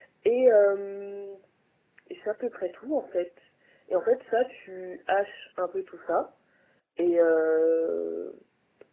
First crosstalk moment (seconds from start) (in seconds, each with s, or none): none